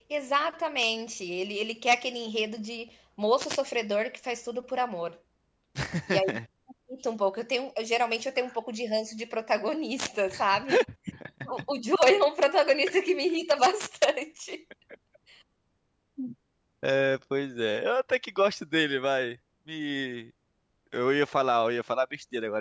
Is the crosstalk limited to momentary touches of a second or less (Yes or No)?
Yes